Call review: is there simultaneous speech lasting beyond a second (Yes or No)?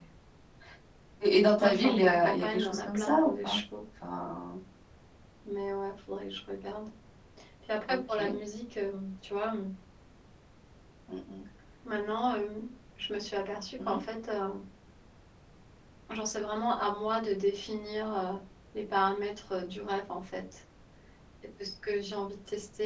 Yes